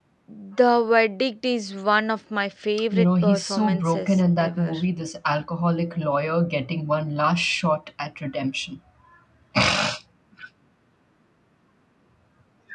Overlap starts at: 2.9 s

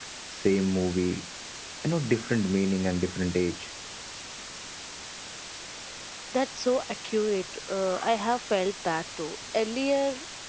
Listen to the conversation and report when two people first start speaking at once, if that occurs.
none

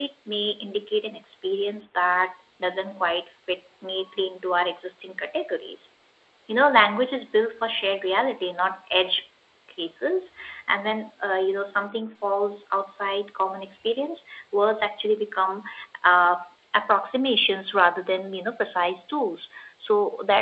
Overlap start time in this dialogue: none

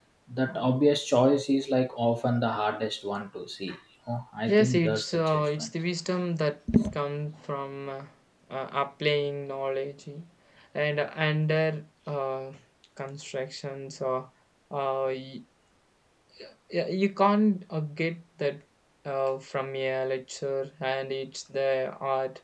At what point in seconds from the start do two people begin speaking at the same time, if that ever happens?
4.5 s

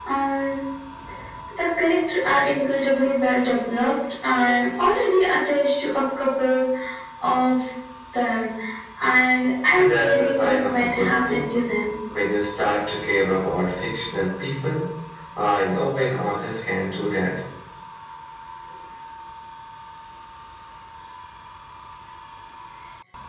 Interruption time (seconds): 9.7 s

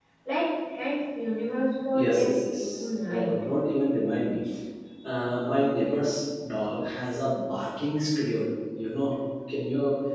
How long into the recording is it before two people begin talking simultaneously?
1.9 s

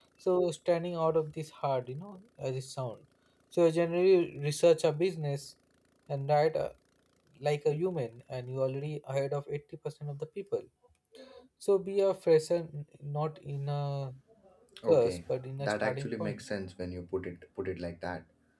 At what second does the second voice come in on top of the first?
14.9 s

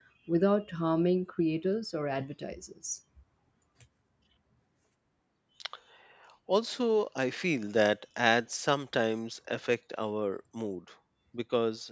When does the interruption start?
none

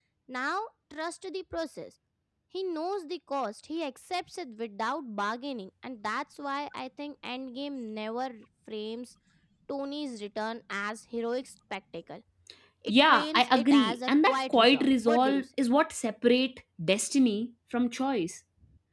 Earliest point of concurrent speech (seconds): 12.9 s

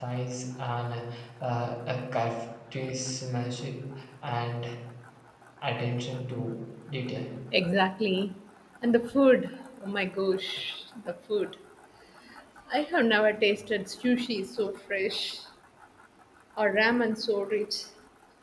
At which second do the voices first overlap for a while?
none

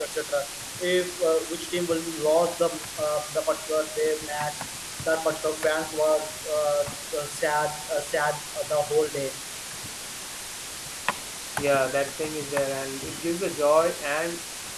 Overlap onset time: none

